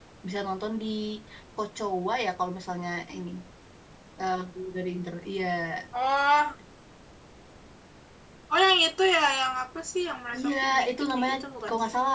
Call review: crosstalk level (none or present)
present